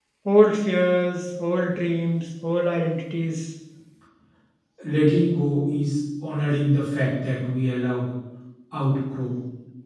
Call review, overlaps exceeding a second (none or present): none